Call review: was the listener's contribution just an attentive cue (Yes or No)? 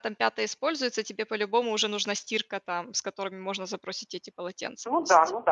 No